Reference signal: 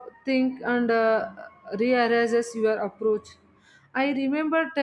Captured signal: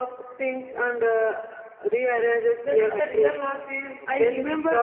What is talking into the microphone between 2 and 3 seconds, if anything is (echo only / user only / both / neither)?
both